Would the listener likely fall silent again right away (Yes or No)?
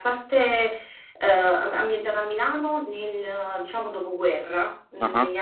Yes